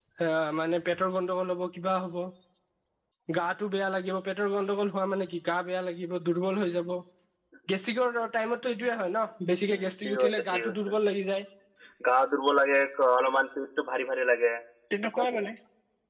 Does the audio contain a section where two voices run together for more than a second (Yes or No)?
Yes